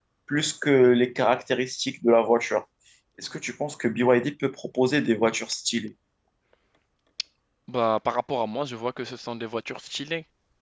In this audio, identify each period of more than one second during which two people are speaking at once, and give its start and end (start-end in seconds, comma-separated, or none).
none